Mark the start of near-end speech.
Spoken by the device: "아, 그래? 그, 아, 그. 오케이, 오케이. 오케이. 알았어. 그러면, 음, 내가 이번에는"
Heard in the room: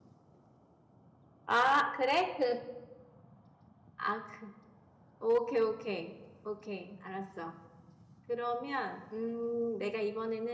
none

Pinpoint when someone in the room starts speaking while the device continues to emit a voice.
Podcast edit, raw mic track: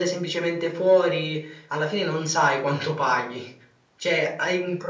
none

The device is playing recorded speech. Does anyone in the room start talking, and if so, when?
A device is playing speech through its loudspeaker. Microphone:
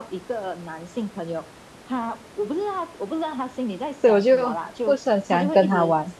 4.0 s

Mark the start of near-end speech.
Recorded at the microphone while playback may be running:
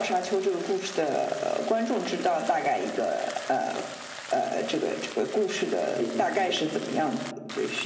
5.9 s

